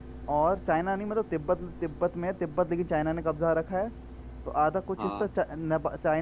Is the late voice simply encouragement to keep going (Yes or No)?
Yes